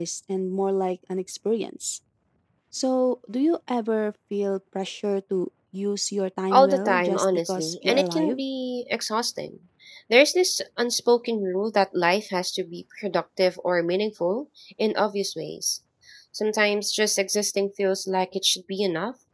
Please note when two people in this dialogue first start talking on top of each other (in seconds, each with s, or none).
6.5 s